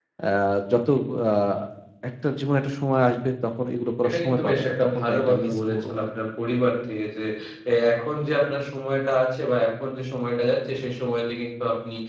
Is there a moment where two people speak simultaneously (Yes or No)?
Yes